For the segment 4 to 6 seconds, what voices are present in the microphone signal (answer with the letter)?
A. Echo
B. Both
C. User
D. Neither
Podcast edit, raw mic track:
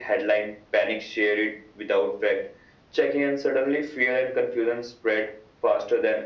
A